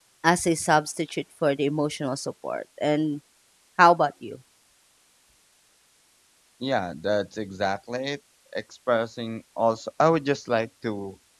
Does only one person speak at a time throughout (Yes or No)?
Yes